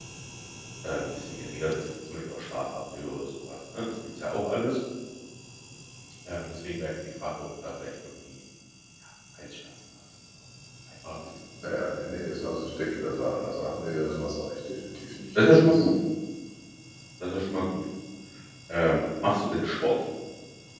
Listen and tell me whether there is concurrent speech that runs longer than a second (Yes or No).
No